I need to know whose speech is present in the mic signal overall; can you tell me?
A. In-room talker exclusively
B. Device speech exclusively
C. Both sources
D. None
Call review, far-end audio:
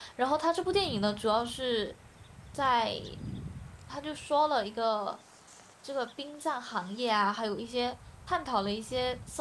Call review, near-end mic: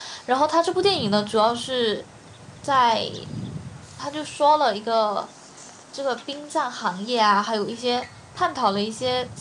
B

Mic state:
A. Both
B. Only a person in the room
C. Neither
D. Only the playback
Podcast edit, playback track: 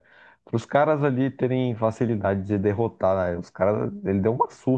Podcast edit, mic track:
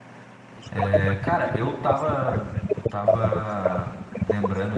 A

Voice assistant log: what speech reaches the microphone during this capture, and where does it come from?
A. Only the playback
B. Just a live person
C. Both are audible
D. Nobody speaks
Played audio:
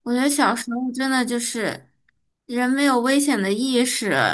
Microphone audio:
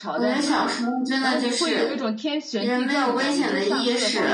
C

